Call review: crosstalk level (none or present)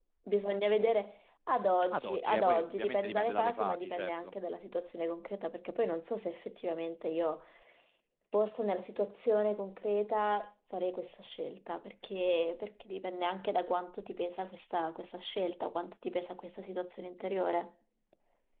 present